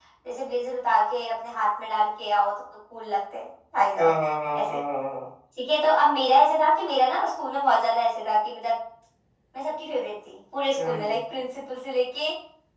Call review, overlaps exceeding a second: none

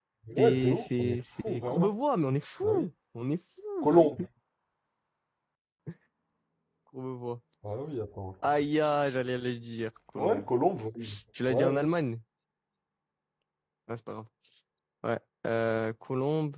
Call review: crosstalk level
present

